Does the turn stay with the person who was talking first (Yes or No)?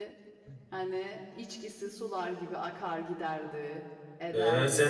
No